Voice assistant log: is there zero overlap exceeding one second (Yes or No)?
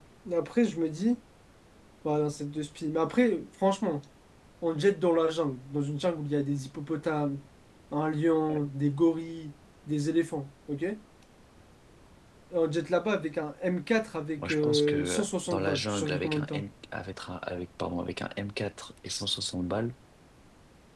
No